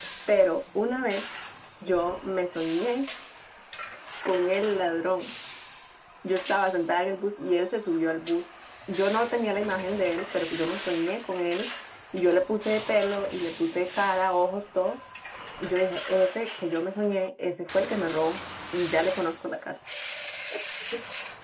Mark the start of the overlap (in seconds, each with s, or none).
none